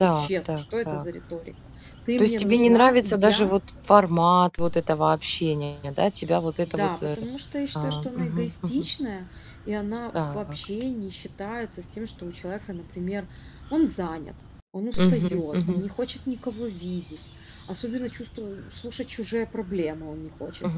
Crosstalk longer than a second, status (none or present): present